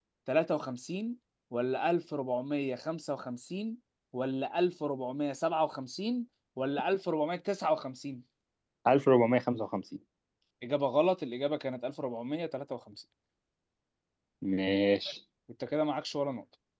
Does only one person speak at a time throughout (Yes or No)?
Yes